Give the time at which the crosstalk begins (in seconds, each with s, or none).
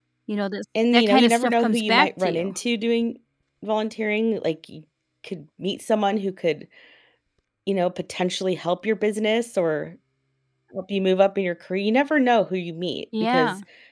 0.9 s